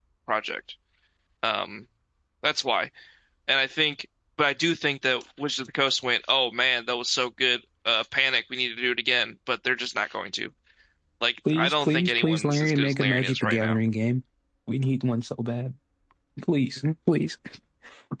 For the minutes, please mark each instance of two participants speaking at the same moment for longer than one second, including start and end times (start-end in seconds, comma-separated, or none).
11.5-13.8